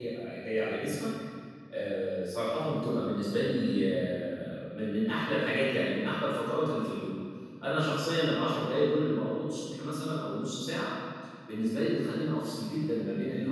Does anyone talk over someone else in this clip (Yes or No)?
No